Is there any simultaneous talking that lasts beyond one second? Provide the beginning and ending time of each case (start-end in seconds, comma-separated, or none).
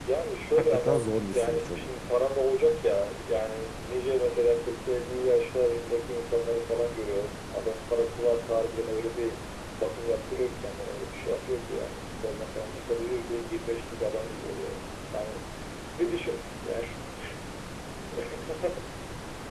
0.6-1.9